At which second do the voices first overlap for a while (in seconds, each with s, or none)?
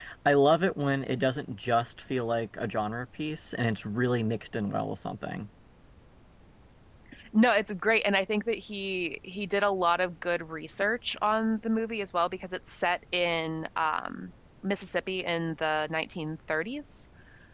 none